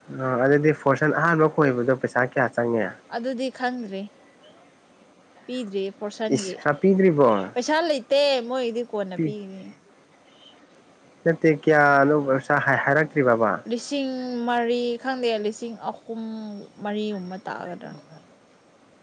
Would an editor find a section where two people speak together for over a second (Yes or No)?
No